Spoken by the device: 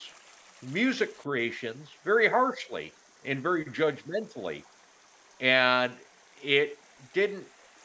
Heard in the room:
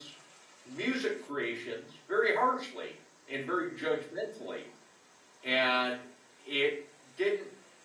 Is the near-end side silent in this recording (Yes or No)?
Yes